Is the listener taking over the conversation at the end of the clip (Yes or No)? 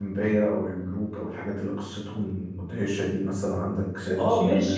Yes